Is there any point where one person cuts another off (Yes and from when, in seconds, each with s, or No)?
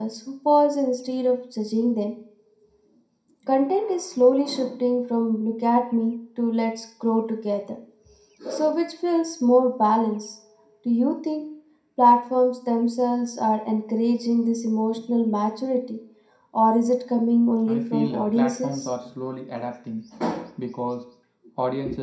Yes, from 17.7 s